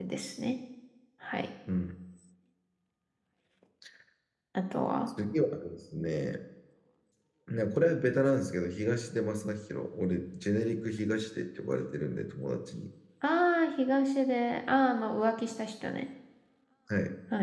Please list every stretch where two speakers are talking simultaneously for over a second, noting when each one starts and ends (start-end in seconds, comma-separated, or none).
none